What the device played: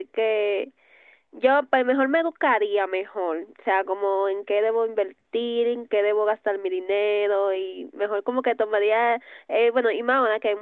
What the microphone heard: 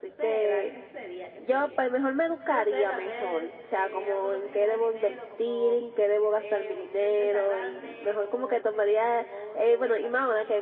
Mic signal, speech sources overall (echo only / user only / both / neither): both